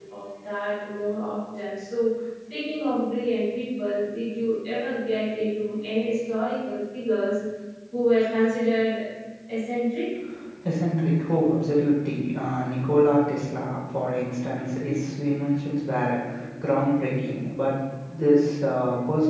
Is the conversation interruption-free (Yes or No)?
Yes